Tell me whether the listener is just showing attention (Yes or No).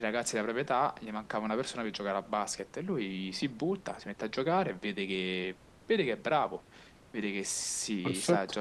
Yes